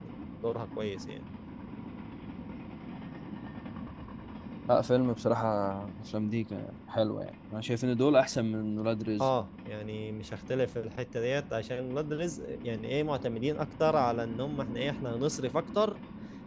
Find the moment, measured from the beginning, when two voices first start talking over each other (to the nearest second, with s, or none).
none